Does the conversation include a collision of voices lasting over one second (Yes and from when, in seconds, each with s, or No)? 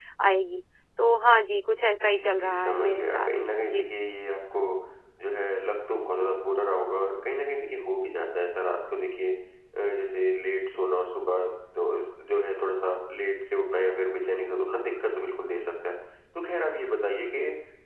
Yes, from 2.0 s